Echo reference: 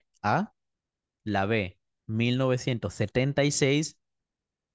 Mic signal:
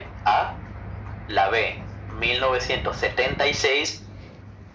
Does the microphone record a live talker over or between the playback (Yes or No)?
No